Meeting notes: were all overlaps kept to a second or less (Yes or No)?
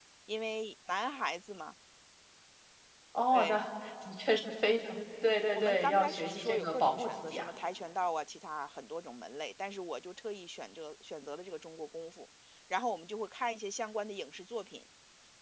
No